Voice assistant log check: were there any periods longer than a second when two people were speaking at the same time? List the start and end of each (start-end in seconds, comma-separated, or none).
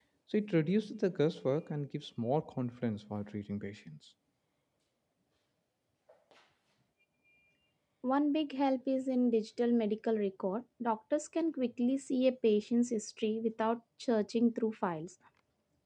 none